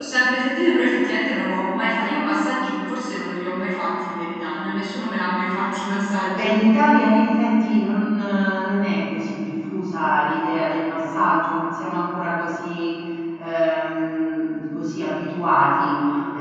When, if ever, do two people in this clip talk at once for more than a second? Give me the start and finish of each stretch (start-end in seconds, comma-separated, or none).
none